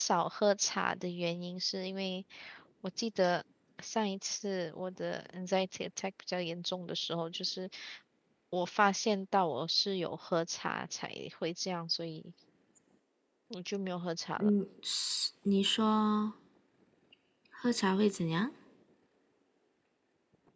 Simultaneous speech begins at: none

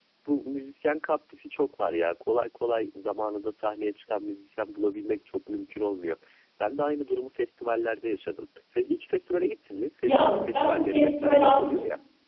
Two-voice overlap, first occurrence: 10.1 s

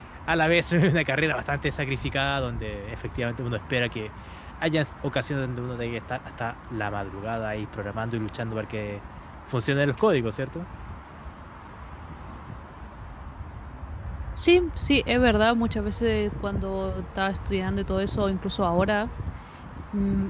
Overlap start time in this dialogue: none

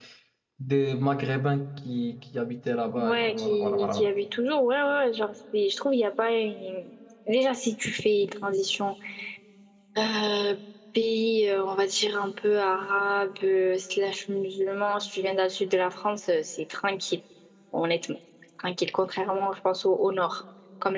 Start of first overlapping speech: 3.0 s

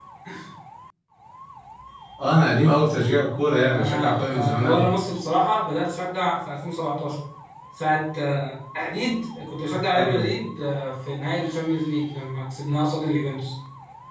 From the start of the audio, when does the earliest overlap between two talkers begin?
3.6 s

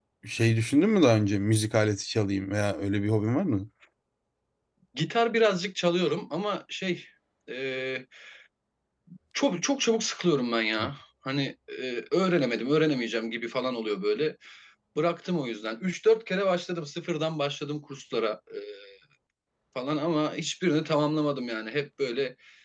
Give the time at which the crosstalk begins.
none

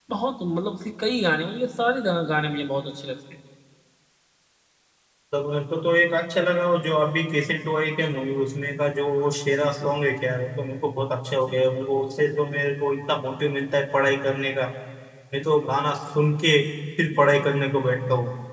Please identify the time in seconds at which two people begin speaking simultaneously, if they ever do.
none

